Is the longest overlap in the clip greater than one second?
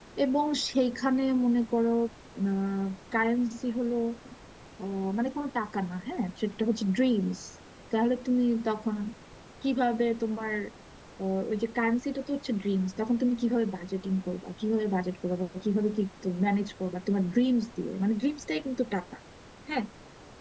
No

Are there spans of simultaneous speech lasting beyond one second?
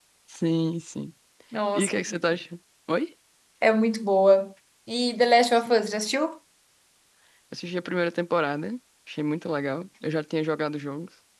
No

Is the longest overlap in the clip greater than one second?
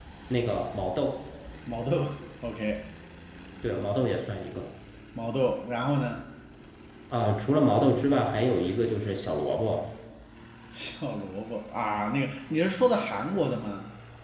No

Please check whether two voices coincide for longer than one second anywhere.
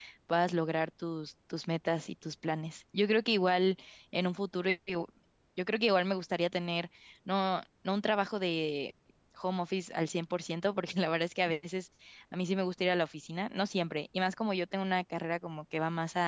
No

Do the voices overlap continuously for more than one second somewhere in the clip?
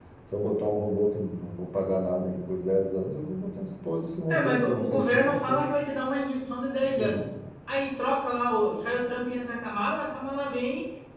Yes, from 4.3 s

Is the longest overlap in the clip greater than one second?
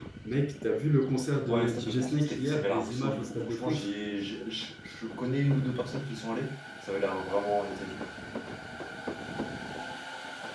Yes, from 1.5 s

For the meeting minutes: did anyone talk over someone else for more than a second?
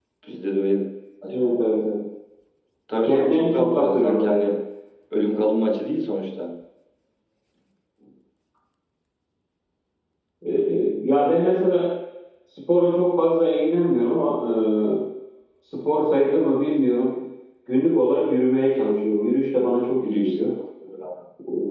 Yes, from 3.0 s

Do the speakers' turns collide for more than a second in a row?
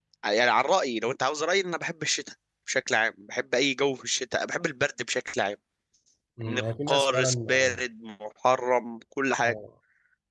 Yes, from 6.5 s

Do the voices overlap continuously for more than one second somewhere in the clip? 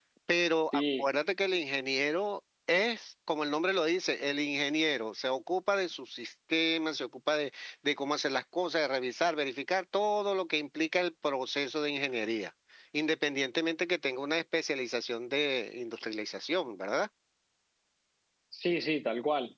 No

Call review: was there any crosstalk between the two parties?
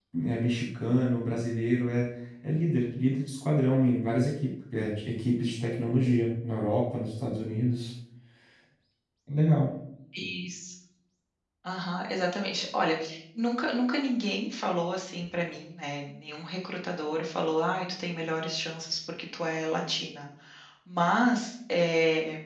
No

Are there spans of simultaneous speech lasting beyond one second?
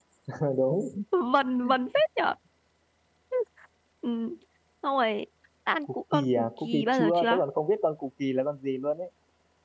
Yes, from 5.8 s

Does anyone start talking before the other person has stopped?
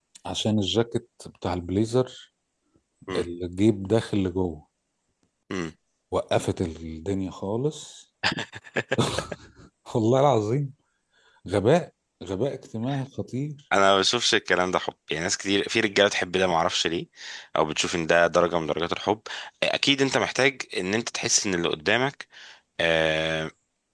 No

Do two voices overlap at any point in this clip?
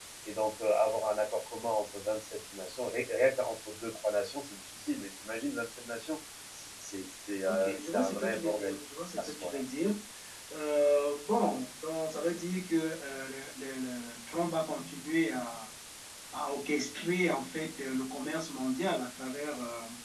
Yes, from 7.4 s

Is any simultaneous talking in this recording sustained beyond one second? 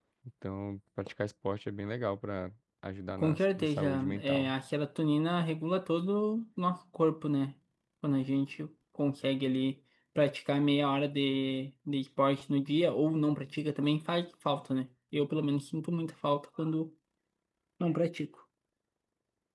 Yes, from 3.1 s

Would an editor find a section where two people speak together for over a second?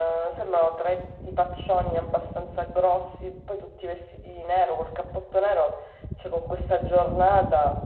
No

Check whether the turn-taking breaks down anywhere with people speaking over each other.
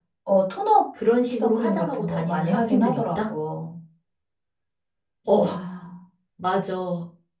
Yes, from 1.4 s

